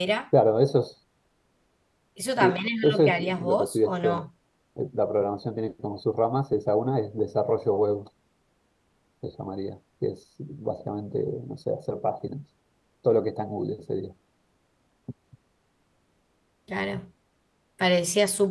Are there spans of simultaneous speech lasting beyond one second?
Yes, from 2.4 s

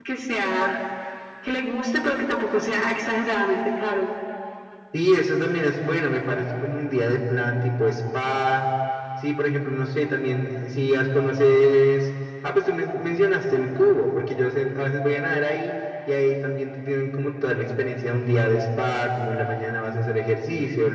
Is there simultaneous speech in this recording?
No

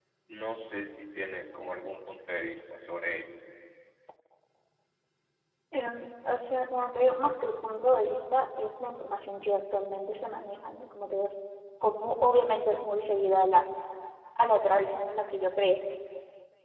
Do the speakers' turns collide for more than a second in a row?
No

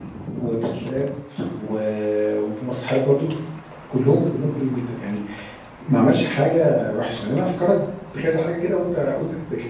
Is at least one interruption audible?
No

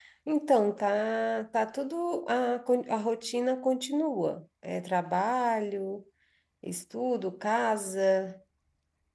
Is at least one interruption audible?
No

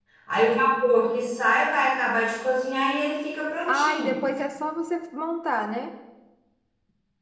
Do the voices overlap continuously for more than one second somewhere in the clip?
No

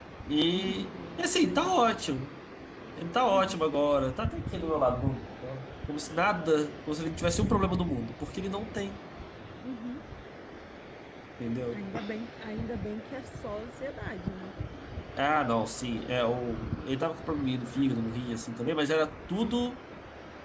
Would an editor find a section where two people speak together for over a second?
Yes, from 0.5 s

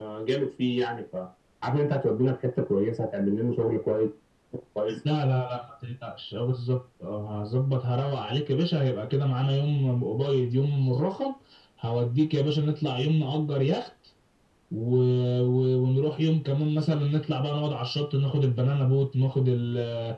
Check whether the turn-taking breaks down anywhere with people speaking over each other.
No

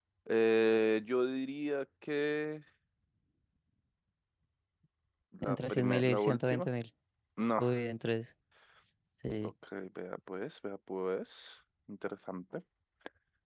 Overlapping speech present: Yes, from 5.4 s

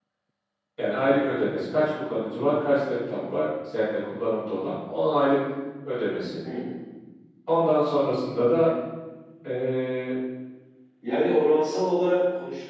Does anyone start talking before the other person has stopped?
No

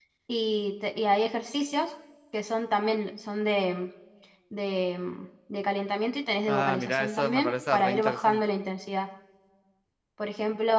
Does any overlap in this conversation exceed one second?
Yes, from 6.5 s

